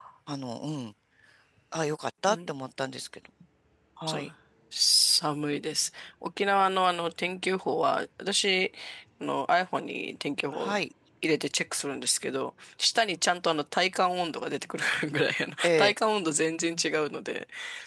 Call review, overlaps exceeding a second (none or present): none